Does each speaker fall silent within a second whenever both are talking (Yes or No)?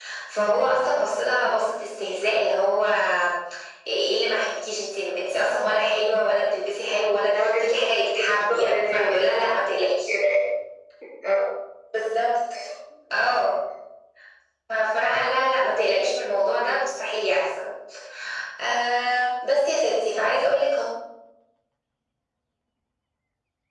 No